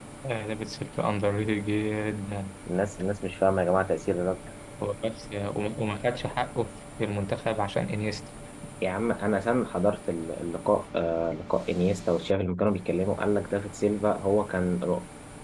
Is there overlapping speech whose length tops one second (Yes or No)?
No